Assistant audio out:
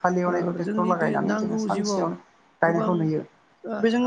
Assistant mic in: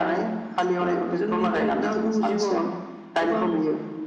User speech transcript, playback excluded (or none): none